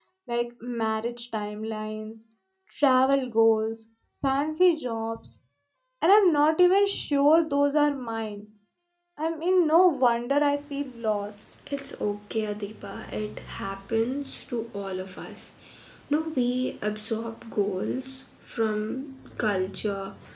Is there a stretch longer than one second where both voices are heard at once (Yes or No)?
No